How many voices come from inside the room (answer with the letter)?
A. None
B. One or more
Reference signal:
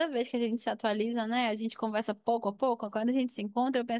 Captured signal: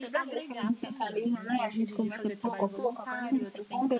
B